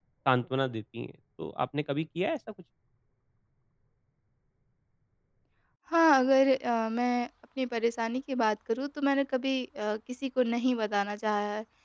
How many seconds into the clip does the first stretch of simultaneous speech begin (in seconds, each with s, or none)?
none